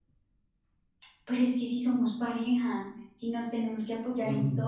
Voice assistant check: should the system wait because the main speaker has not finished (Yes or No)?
No